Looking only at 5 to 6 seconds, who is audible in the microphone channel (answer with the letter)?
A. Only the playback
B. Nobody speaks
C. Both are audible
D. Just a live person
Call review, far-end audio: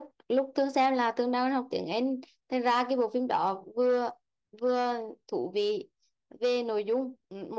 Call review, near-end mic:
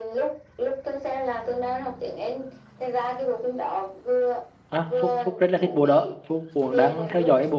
C